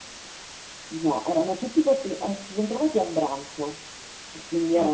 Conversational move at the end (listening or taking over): listening